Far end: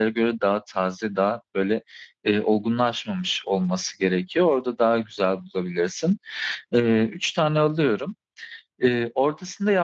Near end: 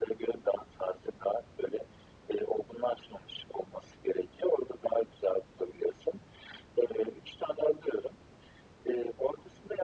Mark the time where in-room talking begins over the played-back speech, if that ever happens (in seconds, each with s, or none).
none